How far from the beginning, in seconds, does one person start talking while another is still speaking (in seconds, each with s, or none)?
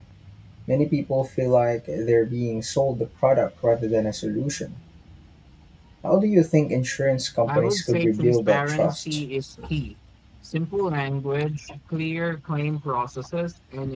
7.5 s